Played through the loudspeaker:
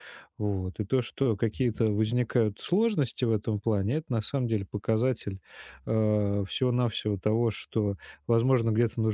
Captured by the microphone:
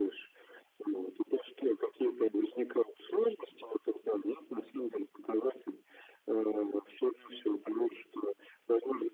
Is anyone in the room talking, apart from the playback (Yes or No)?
No